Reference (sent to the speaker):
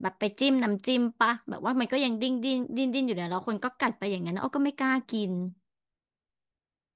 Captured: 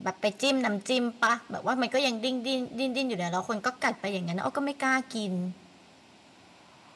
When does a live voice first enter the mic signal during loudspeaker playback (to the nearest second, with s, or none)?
none